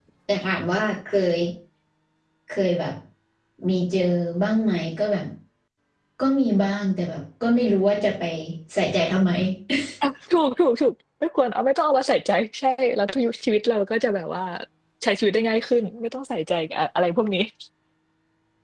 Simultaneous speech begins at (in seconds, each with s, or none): none